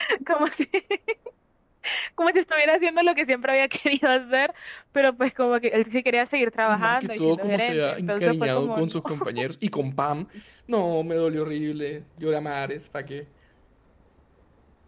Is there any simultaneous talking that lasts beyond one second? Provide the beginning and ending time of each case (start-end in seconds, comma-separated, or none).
6.7-9.0